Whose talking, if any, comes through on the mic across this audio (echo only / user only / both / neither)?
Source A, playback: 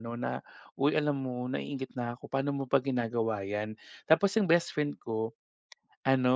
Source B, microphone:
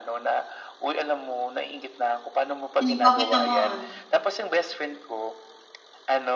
both